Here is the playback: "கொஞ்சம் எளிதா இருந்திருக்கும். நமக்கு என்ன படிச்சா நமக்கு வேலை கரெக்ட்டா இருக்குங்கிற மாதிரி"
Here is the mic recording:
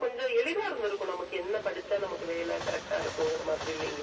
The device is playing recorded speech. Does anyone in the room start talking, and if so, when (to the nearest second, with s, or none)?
none